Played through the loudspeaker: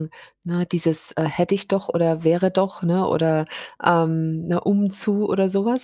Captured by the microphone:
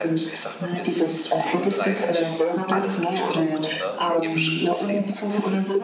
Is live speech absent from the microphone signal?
No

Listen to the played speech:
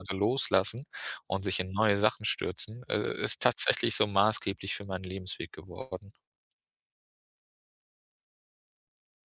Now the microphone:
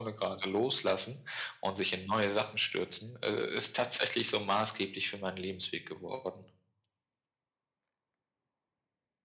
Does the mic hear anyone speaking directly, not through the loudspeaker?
No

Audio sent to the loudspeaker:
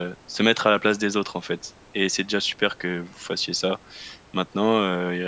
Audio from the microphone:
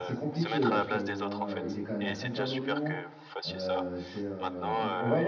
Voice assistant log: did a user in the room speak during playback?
Yes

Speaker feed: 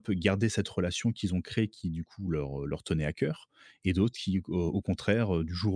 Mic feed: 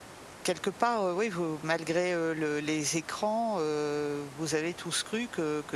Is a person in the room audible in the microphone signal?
Yes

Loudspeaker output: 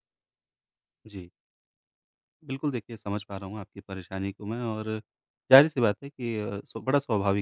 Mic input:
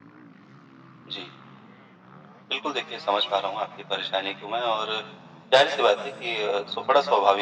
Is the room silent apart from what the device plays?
Yes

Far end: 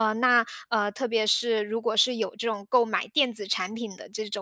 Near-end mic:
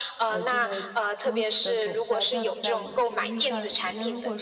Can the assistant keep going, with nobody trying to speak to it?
No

